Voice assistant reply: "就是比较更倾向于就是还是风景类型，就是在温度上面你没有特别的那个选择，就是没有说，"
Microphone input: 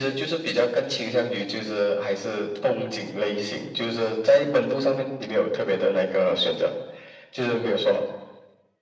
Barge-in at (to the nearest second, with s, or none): none